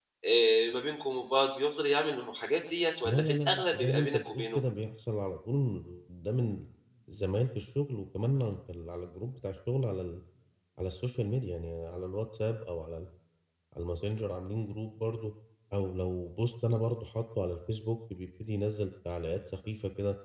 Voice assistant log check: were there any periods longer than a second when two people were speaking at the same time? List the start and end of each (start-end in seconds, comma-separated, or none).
3.0-4.6